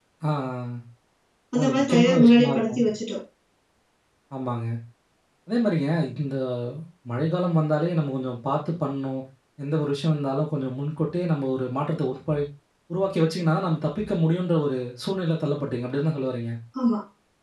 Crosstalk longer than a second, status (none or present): present